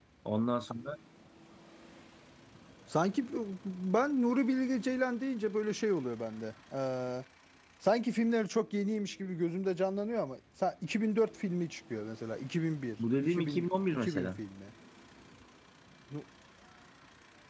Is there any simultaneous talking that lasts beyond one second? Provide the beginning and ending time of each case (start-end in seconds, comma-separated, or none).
13.2-14.4